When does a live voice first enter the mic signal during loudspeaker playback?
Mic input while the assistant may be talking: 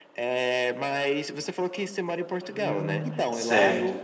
2.5 s

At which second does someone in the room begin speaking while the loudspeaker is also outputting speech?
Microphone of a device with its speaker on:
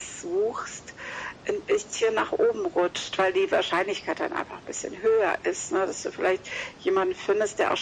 none

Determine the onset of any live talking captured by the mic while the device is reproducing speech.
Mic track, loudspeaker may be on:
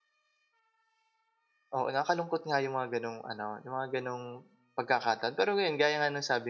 1.7 s

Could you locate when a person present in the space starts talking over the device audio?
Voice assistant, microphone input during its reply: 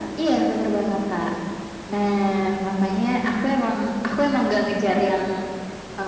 none

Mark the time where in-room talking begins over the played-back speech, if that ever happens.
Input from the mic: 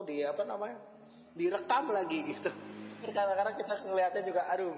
none

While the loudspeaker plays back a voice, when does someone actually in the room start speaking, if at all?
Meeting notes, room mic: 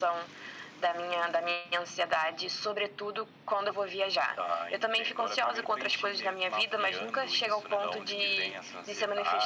none

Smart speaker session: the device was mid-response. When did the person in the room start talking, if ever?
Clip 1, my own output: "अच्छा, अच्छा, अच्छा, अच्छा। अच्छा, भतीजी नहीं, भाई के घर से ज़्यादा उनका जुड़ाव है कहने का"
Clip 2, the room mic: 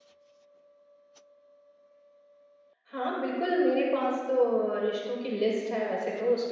2.8 s

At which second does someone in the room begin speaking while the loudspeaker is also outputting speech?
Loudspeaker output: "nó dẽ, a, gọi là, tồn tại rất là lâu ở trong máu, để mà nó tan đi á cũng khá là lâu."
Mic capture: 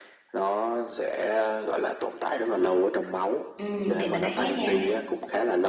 3.6 s

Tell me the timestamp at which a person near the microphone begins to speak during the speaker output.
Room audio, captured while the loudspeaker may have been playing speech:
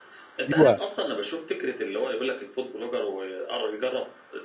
0.5 s

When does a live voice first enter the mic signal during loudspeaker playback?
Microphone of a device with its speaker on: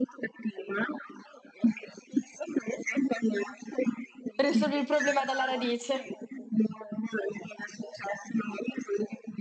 4.4 s

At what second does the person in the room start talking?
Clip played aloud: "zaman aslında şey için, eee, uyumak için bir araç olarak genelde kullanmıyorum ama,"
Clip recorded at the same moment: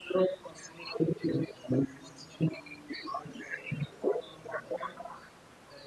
none

